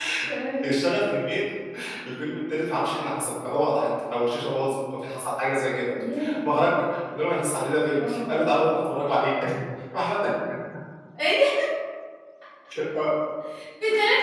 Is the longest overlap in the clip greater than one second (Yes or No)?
No